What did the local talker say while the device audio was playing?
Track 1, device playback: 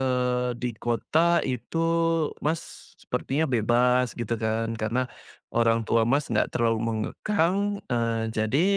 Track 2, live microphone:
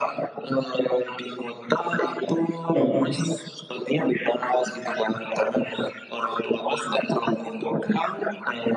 heeh.

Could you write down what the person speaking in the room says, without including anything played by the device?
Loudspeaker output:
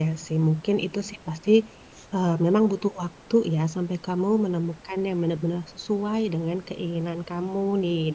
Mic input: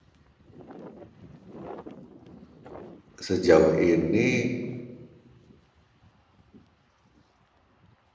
sejauh ini

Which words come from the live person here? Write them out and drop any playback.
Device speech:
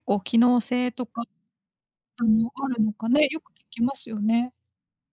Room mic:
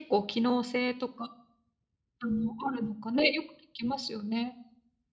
none

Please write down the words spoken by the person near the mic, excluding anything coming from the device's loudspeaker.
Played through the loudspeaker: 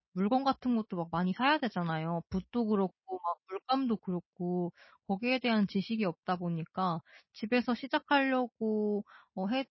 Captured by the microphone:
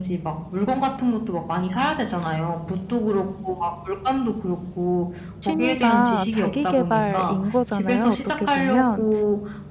취미가 자기 개발인 거잖아요 어떻게 보면.

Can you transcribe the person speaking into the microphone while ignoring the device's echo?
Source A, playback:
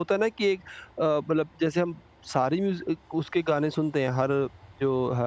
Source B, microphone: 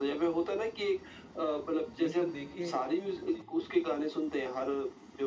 जी, तो देखिए जी।

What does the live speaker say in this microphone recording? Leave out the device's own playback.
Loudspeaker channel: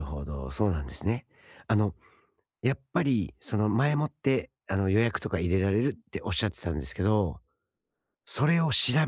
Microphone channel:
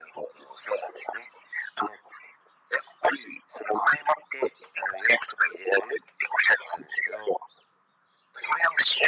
none

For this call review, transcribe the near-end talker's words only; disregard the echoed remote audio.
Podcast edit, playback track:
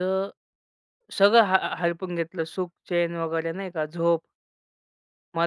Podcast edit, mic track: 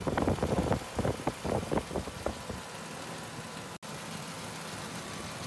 none

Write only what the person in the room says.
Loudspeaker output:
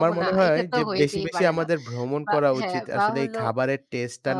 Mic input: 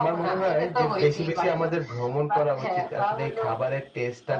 none

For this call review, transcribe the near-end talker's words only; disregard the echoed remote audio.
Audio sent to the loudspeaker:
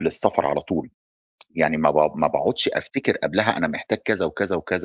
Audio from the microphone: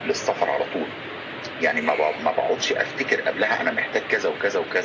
none

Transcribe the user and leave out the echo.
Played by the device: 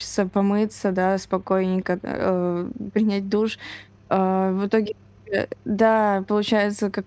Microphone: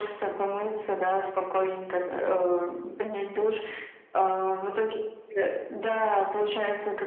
none

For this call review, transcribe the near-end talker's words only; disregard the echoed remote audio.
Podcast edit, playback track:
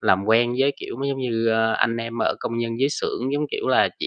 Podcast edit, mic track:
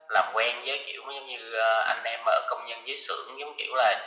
none

